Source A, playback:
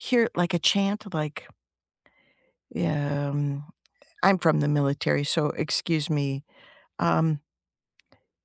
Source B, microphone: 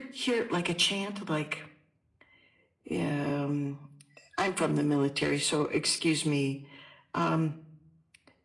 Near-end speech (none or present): none